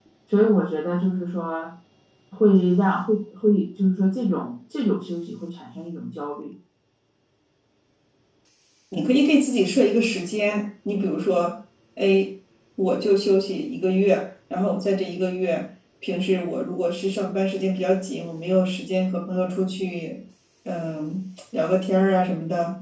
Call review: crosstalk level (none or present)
none